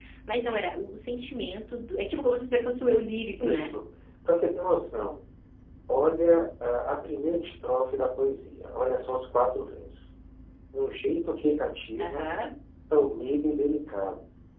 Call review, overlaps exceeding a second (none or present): none